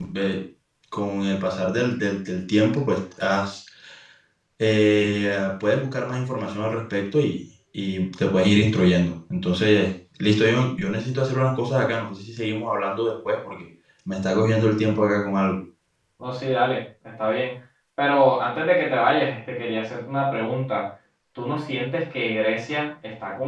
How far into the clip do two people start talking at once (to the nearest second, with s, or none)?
none